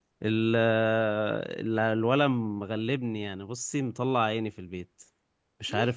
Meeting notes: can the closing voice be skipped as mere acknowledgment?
No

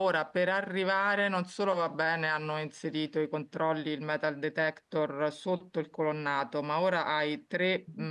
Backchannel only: Yes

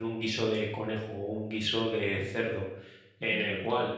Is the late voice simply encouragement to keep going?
Yes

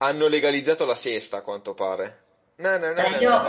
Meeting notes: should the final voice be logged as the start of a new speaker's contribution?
Yes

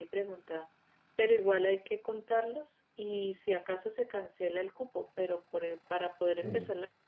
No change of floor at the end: Yes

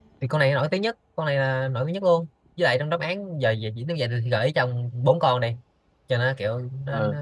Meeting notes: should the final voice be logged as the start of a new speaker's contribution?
Yes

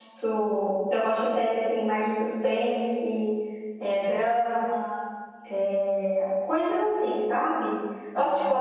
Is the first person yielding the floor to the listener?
No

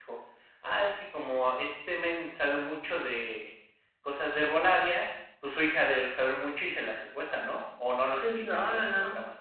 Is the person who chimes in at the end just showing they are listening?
No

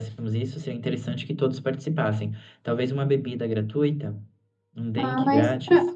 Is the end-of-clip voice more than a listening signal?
Yes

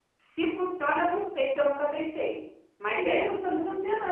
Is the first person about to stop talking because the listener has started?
Yes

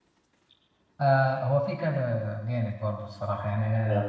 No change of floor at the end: Yes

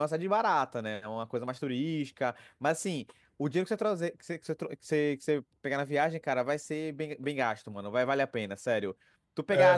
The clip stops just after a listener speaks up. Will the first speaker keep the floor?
Yes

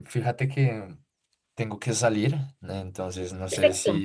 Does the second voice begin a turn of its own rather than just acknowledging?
No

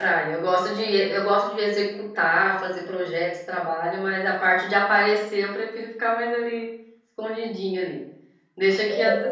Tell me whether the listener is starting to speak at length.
No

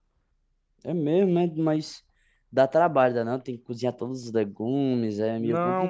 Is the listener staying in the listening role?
No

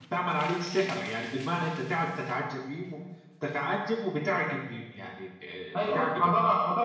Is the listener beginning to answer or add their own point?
Yes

